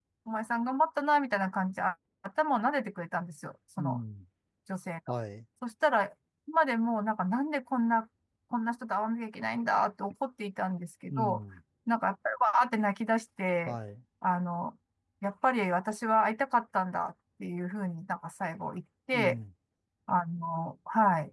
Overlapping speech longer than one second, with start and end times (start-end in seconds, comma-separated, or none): none